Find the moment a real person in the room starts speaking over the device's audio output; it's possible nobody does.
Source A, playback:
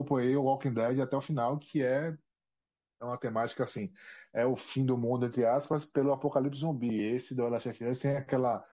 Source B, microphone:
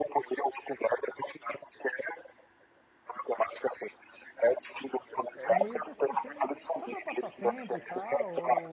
5.3 s

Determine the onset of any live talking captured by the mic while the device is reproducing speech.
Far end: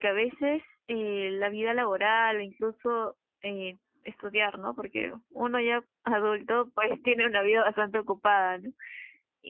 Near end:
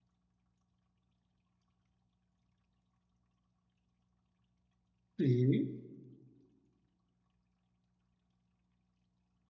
5.2 s

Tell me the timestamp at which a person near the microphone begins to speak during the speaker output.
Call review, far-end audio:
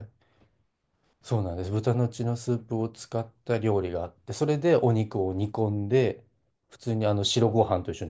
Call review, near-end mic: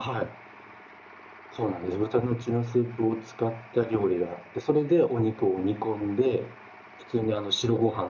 none

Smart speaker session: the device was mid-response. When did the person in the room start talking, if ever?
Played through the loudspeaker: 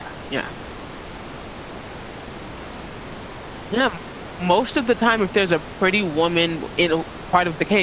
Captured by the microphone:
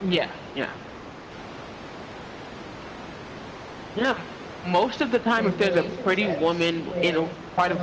5.3 s

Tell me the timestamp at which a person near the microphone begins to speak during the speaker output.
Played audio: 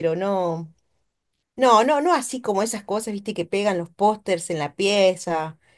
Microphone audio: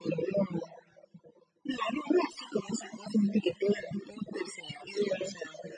none

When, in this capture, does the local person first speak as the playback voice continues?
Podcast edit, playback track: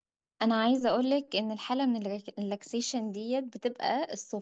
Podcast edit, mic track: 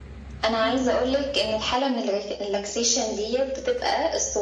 0.6 s

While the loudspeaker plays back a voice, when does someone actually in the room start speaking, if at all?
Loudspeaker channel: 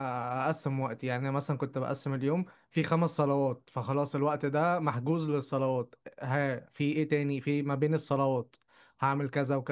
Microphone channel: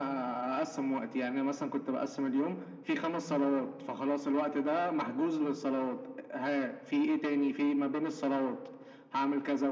none

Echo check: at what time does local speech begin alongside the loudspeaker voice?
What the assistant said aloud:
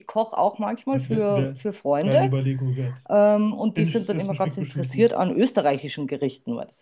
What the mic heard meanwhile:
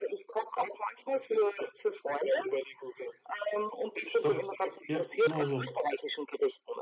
4.2 s

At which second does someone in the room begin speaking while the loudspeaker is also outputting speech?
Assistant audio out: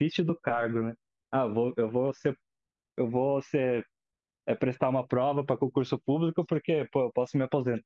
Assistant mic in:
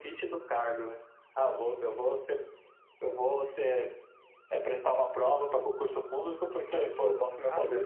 6.7 s

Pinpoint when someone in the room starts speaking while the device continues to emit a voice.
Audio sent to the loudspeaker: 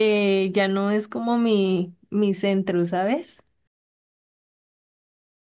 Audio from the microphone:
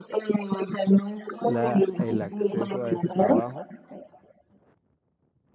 1.5 s

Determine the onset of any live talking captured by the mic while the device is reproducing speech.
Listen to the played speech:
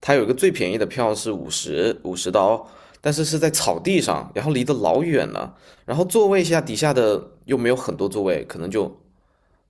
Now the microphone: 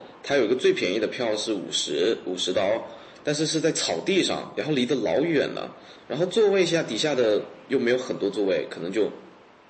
none

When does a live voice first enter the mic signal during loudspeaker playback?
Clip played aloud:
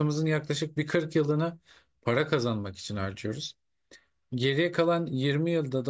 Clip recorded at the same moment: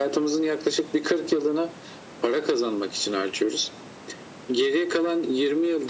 none

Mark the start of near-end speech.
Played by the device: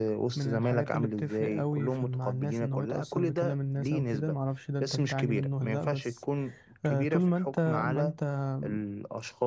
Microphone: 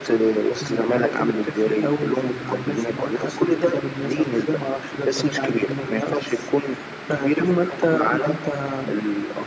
none

